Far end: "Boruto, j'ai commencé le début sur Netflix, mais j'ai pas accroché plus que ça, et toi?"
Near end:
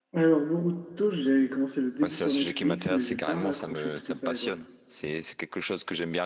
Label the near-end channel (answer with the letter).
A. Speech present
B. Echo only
A